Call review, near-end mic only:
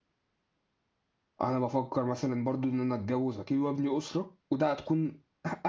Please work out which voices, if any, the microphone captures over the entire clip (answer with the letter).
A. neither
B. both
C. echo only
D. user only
D